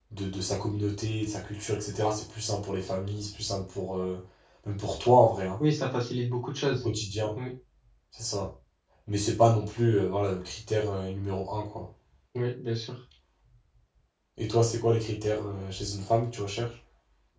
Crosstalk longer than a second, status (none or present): none